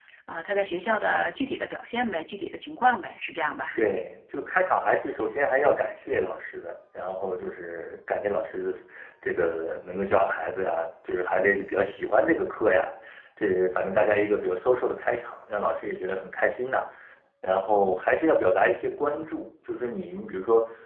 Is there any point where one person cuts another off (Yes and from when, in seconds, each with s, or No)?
No